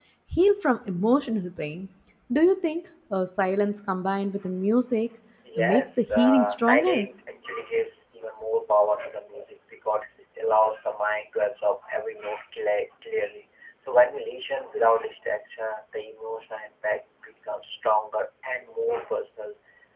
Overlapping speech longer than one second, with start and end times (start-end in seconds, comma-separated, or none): 5.6-7.1